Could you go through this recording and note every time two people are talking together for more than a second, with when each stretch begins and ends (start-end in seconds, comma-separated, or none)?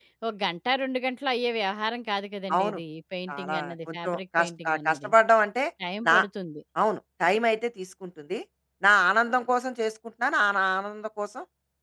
3.3-5.1